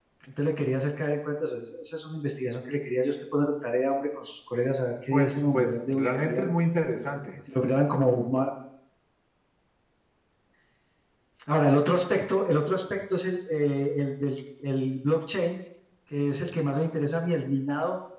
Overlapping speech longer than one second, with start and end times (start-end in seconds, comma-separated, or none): 5.1-6.5